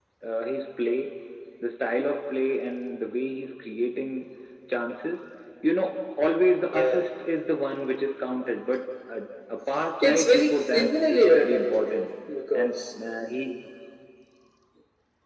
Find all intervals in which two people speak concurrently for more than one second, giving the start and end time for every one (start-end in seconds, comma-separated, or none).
10.0-12.0